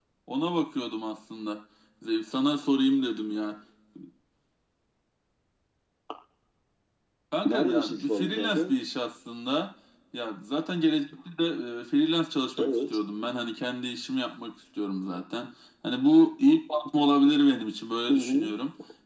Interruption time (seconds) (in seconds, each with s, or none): 7.4 s